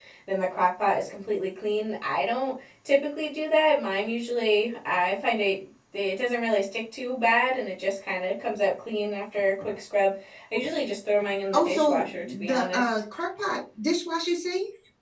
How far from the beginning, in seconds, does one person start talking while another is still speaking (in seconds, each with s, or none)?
11.5 s